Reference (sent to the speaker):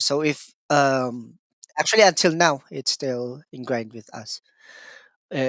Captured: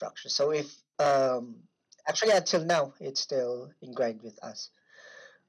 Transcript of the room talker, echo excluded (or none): none